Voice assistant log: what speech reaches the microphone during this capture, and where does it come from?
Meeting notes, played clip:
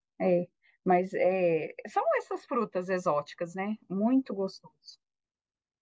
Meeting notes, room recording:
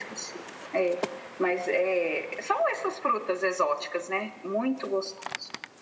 echo only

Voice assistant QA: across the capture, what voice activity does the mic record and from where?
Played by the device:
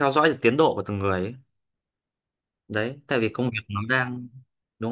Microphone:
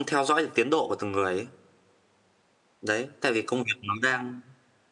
echo only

